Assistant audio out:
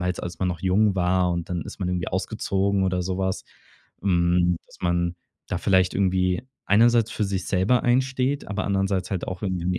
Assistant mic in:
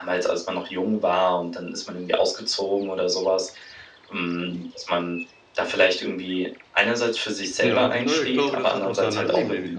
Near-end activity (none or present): present